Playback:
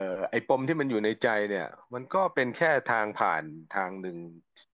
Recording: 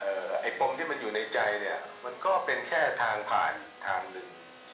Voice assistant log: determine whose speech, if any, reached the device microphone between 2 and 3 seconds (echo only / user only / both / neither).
echo only